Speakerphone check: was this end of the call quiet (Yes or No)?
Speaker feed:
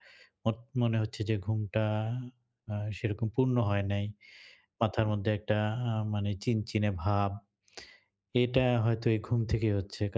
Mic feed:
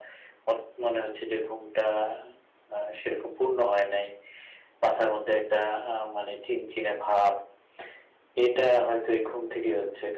Yes